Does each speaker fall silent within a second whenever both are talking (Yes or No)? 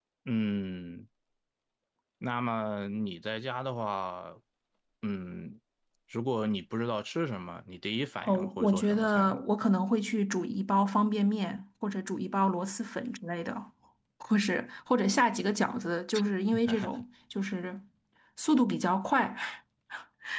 No